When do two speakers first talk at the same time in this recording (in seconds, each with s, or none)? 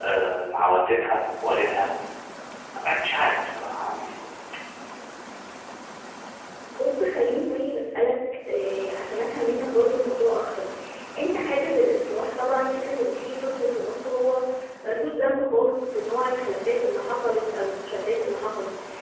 none